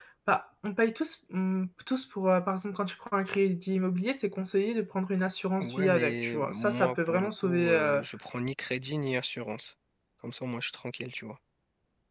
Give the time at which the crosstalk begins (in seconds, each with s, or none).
5.6 s